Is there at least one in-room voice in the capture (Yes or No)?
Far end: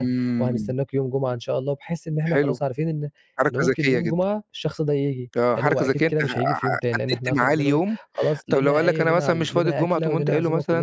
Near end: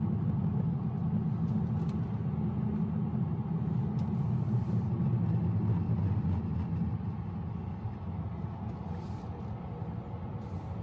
No